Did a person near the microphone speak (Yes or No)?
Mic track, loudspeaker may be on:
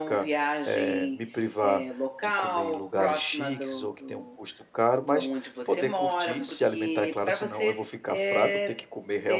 Yes